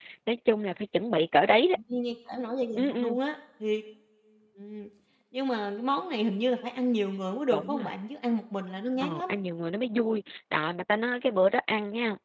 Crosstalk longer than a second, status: none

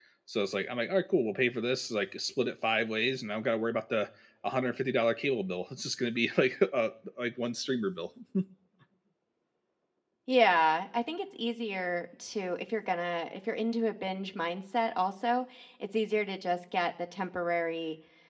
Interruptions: none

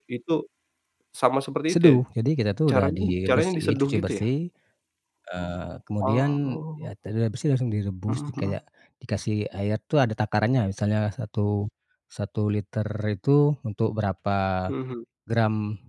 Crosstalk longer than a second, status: present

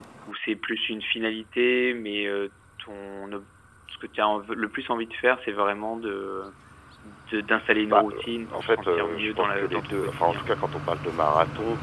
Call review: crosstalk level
present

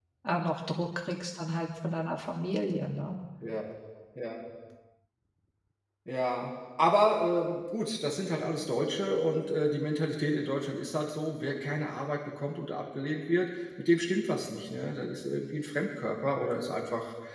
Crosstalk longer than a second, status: none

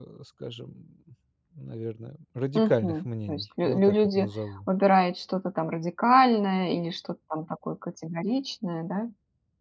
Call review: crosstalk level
present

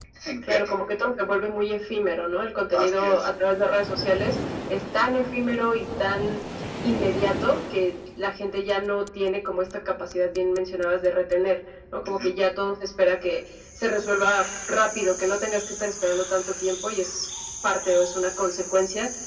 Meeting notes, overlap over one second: none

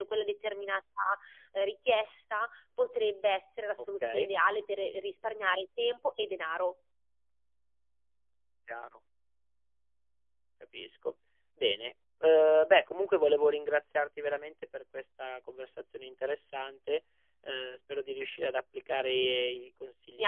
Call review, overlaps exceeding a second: none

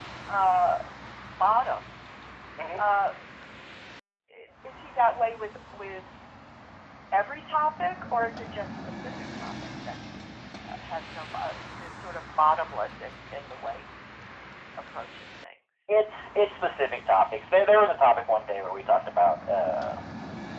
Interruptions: none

